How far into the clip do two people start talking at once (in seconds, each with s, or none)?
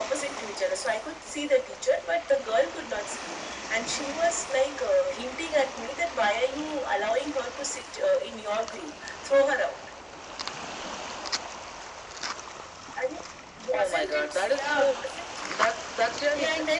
13.7 s